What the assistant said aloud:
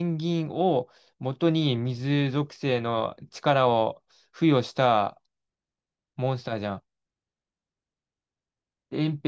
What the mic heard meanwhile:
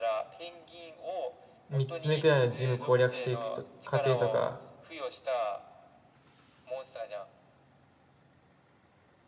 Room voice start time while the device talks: 1.7 s

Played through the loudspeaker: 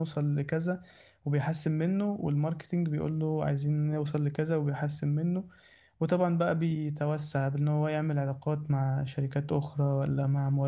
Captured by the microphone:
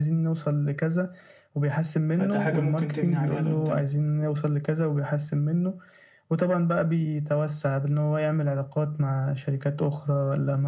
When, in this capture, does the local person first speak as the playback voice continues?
2.1 s

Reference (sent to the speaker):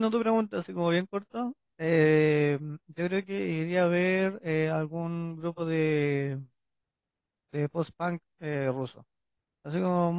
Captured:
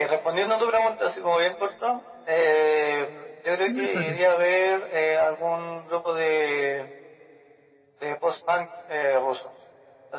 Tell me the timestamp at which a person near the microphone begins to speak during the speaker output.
3.6 s

